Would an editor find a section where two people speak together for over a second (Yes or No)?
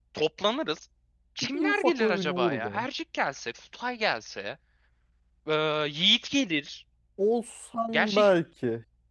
Yes